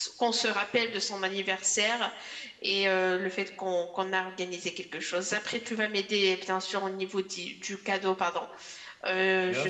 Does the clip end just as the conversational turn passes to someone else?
Yes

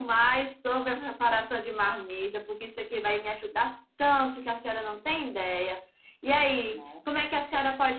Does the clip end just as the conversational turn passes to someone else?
No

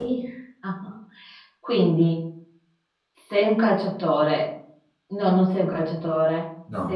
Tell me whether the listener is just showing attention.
Yes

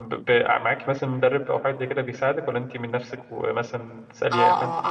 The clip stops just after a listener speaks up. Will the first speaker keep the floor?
No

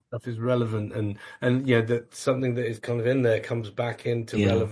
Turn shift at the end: Yes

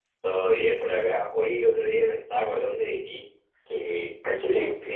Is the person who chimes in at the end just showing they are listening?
Yes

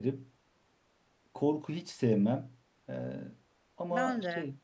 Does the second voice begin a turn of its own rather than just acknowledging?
No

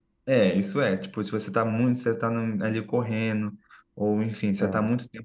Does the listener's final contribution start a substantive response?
No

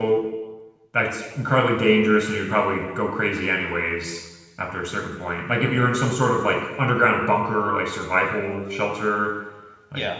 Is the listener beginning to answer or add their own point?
Yes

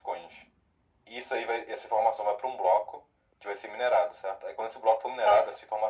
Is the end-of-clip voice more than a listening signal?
No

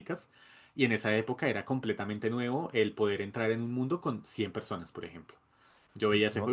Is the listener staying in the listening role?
Yes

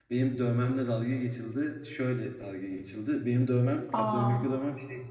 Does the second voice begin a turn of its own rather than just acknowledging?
No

